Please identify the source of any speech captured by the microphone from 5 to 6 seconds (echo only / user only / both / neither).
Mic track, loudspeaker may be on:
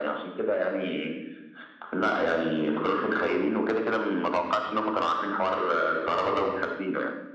echo only